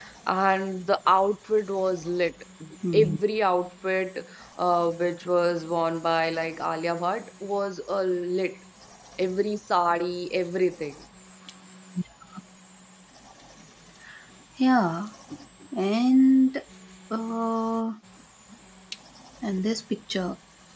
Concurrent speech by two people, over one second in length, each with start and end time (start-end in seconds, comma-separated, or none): none